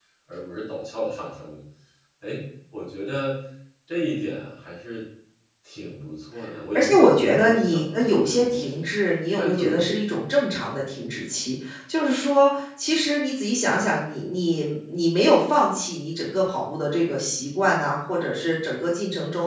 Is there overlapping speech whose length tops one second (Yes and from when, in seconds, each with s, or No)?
Yes, from 6.7 s